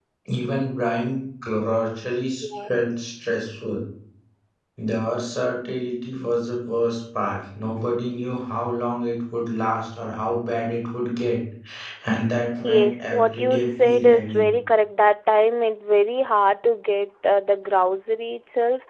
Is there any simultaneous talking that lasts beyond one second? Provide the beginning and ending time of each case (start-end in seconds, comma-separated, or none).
12.6-14.5